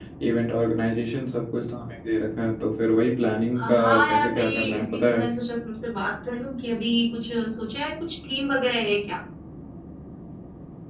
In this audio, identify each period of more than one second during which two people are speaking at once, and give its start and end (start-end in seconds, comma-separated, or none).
3.6-5.2